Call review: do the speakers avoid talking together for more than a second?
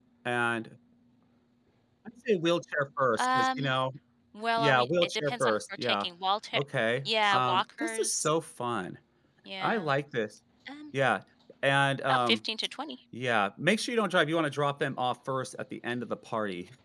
No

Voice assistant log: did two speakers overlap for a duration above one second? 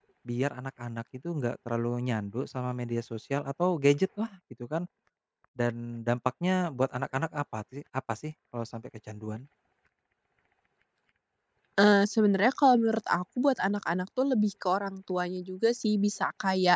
No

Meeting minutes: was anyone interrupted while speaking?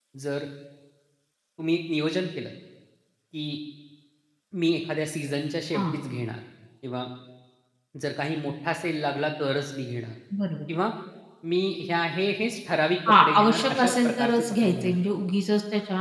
Yes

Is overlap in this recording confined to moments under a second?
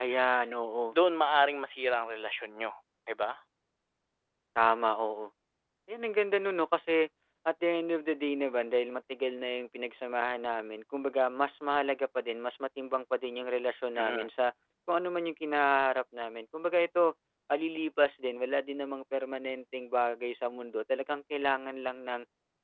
Yes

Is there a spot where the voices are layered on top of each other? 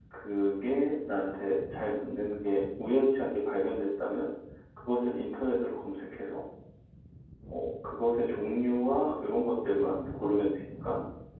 No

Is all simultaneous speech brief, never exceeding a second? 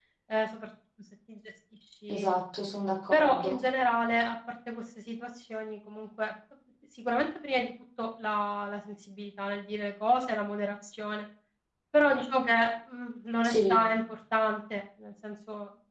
Yes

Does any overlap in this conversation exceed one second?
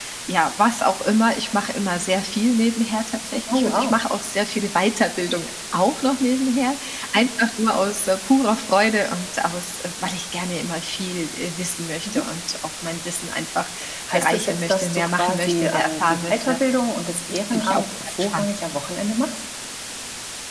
Yes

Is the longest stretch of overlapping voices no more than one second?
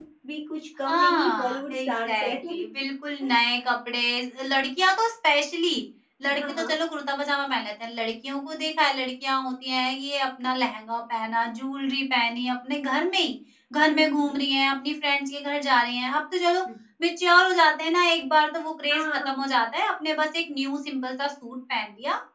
No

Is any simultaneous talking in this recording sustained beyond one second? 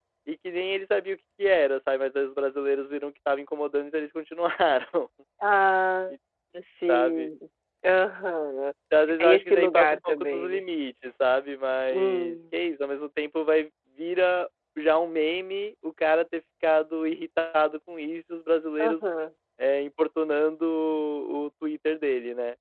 Yes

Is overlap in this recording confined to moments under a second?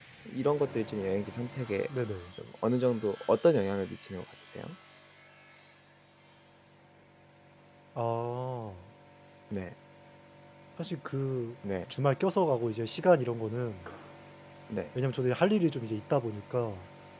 Yes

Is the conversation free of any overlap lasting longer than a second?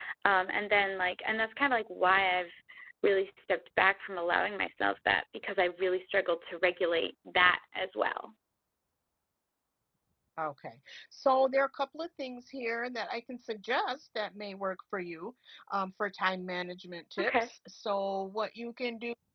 Yes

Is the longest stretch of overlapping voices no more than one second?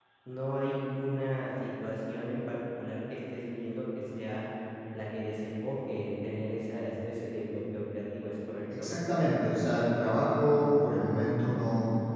Yes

